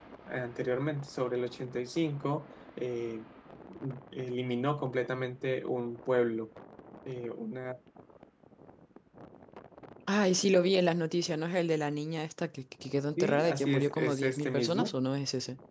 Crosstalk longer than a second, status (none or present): present